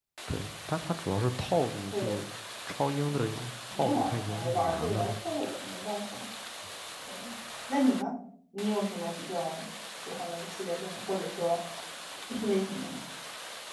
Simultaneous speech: Yes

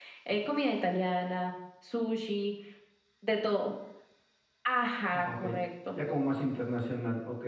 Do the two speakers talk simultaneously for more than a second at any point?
No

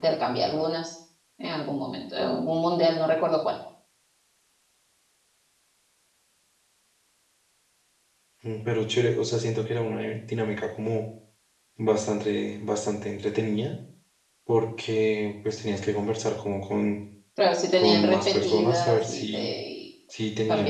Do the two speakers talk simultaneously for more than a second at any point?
Yes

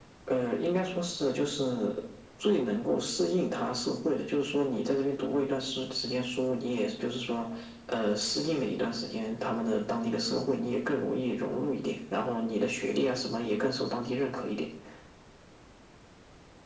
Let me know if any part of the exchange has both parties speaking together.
No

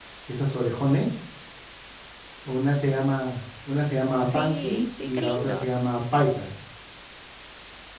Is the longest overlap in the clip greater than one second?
Yes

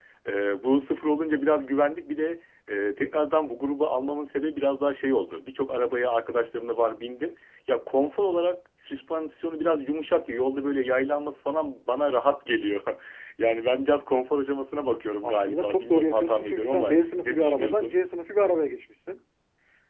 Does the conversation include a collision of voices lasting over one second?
Yes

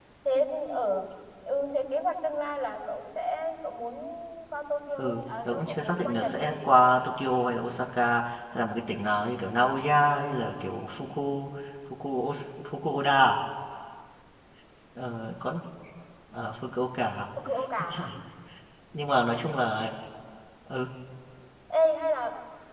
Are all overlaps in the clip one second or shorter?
No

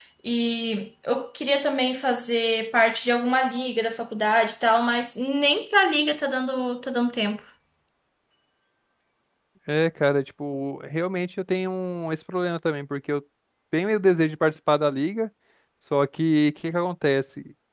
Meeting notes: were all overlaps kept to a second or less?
Yes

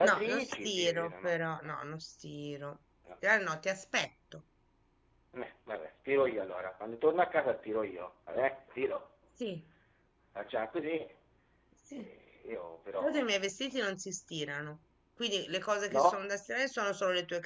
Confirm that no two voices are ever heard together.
No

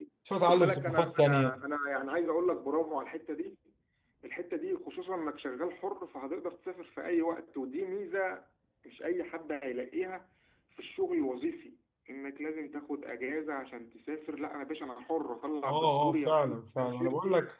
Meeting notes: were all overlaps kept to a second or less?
No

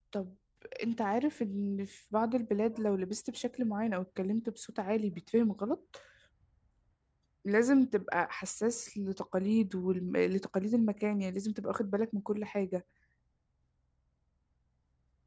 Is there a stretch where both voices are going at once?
No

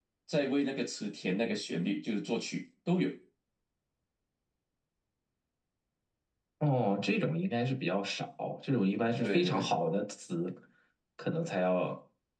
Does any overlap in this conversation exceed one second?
No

